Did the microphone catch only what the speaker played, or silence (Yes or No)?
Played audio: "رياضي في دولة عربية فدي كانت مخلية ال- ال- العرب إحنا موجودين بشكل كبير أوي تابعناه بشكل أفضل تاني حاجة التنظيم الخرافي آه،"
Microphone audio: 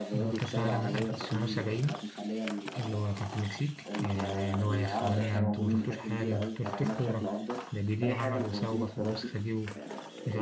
No